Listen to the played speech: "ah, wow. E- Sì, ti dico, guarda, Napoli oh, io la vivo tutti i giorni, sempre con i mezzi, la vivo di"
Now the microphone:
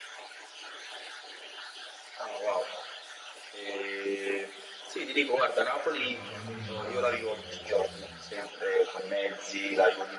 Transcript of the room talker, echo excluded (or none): eh, parlando di Milano, che mh,